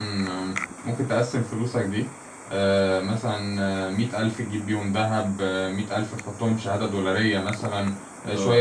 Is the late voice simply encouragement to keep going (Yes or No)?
Yes